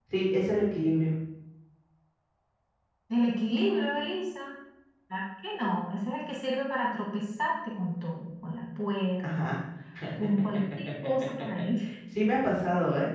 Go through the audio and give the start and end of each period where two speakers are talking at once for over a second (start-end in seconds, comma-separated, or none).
none